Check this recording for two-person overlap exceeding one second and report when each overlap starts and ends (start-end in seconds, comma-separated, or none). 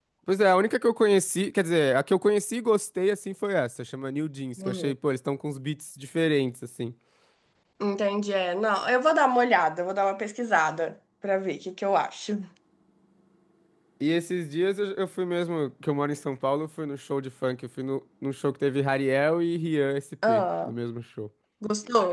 none